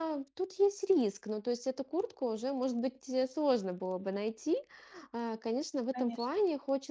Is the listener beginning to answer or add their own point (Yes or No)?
No